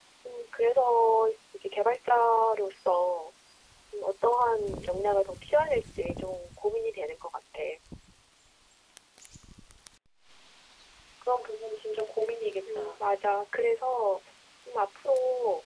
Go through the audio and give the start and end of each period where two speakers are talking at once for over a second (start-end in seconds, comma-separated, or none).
none